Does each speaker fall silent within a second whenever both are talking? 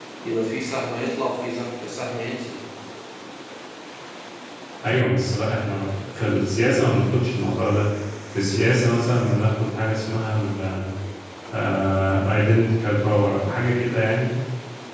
Yes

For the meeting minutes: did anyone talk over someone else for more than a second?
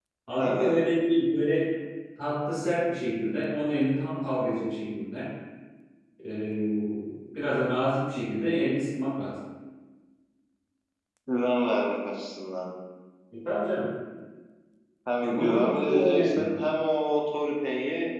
Yes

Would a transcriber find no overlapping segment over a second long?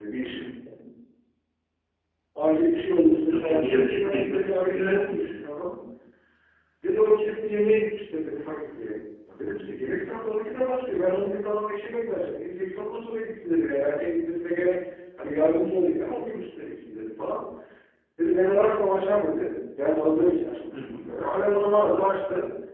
No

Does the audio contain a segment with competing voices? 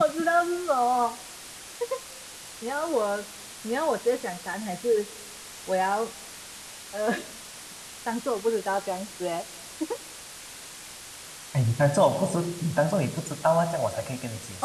No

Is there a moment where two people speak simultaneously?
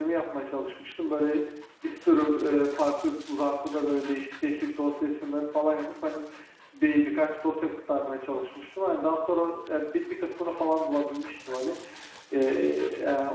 No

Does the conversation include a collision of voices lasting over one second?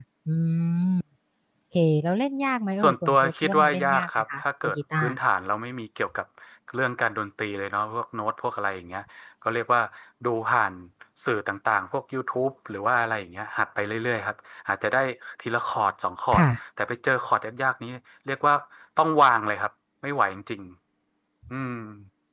Yes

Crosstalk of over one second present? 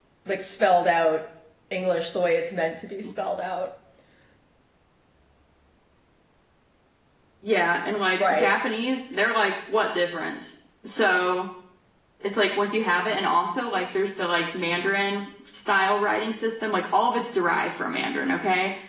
No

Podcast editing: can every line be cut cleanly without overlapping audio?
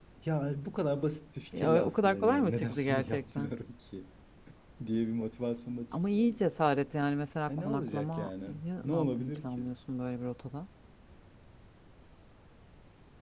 No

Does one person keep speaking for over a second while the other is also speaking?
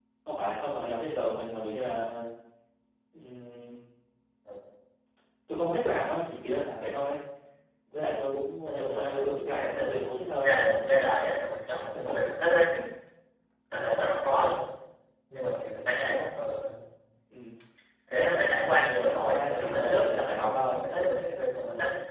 Yes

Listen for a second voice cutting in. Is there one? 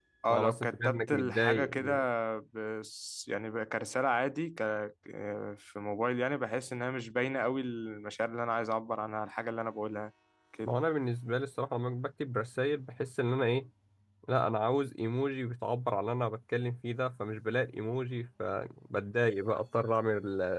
Yes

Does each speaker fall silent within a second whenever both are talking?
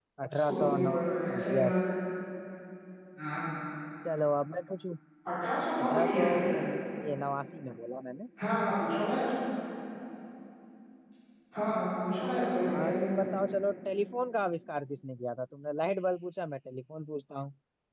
No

